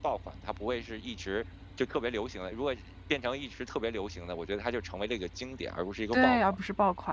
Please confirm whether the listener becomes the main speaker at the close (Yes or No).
Yes